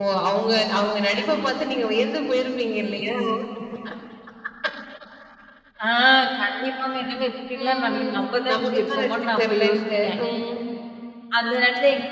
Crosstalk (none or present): present